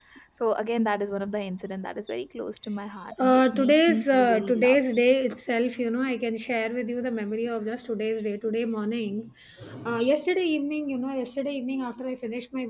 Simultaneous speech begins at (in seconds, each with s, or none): 3.1 s